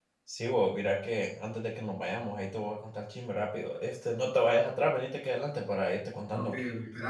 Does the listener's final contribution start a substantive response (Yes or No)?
Yes